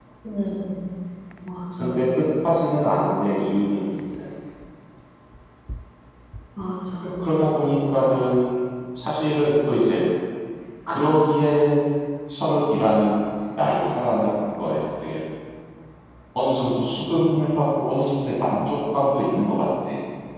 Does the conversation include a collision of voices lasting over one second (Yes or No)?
No